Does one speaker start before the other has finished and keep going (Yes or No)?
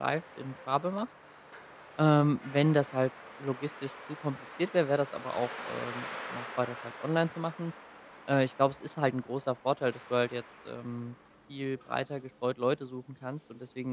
No